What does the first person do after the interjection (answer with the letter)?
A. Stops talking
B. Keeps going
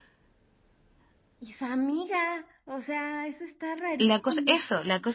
A